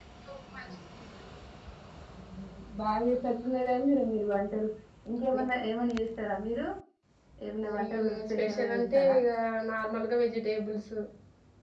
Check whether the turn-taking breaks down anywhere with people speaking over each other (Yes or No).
Yes